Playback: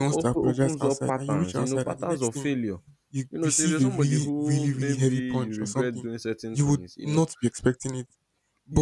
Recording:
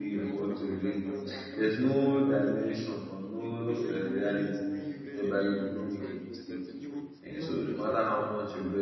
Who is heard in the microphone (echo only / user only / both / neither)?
both